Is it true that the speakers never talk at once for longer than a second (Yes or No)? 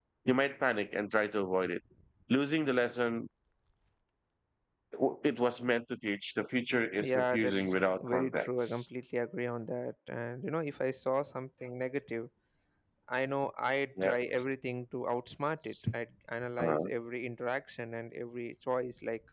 No